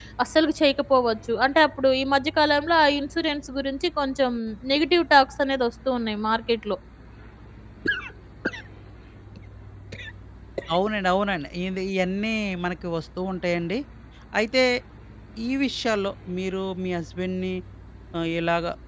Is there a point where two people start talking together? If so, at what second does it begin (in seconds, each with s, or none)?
none